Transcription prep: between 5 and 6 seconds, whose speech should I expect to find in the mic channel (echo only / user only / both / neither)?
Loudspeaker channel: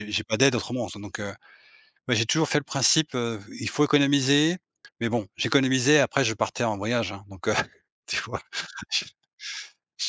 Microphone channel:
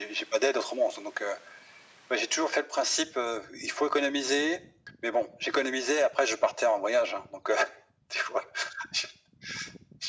echo only